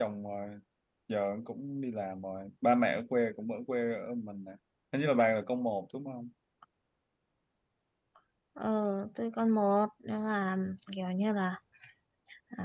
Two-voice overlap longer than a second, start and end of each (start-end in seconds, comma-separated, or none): none